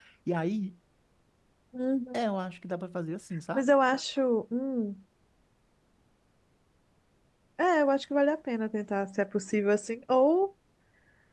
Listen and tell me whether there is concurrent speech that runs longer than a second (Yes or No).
No